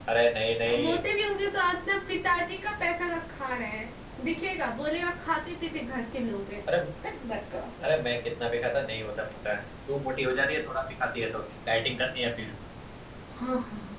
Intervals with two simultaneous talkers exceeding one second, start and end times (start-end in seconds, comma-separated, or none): none